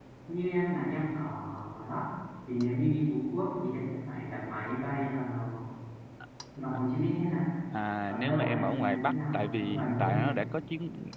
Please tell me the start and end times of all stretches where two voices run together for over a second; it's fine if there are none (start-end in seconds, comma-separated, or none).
8.1-10.4